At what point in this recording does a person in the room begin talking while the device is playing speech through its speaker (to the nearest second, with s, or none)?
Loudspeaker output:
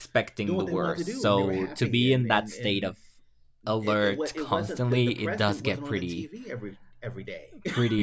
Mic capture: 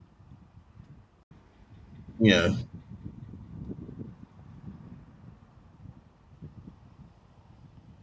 2 s